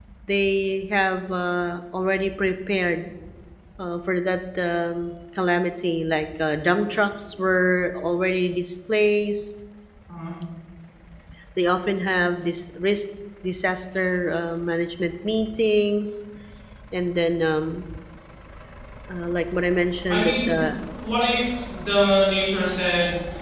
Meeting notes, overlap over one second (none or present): none